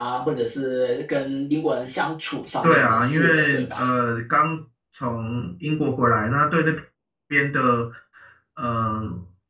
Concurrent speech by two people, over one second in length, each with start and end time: 2.6-3.9

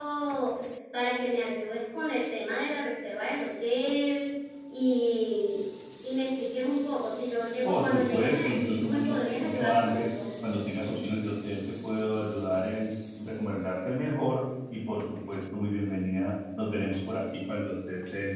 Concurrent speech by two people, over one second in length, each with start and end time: 7.6-10.1

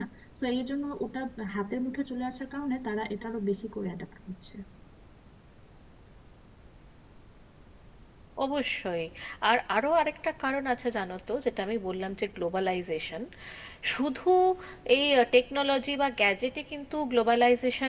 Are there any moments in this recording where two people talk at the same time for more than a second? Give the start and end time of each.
none

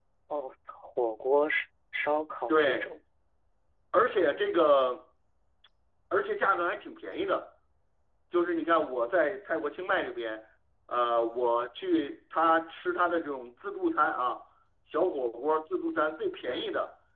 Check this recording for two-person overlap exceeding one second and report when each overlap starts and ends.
none

